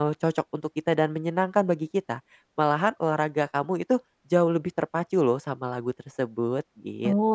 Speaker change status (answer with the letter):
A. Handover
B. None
A